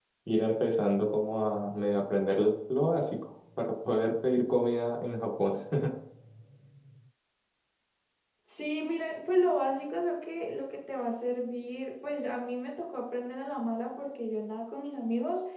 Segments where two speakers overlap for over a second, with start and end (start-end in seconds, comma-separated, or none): none